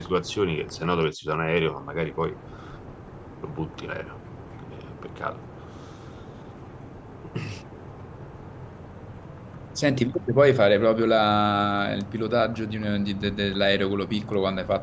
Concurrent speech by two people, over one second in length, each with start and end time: none

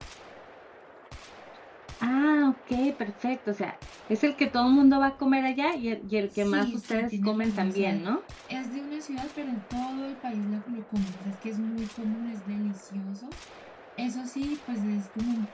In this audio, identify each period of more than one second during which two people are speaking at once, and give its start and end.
6.3-8.0

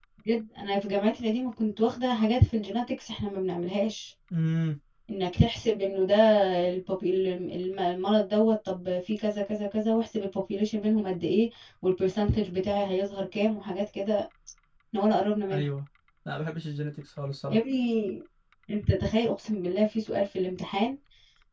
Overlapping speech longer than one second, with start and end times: none

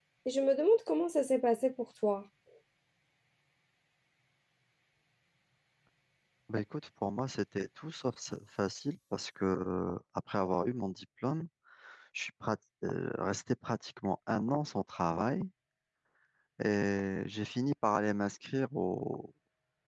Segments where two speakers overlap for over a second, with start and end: none

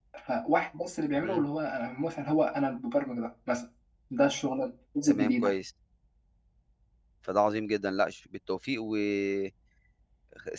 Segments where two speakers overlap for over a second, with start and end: none

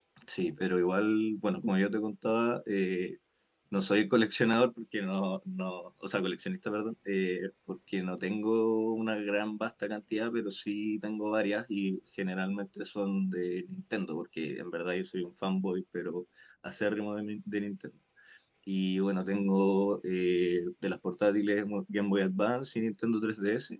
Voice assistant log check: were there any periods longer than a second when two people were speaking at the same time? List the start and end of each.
none

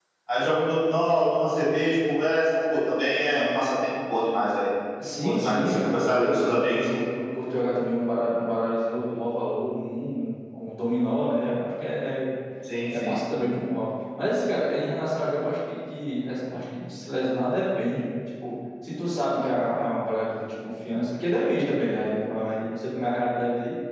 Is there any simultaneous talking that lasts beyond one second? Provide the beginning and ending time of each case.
5.2-6.8

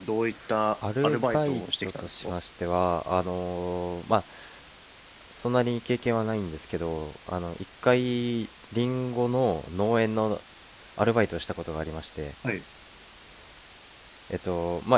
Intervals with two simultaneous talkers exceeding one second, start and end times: 1.0-2.3

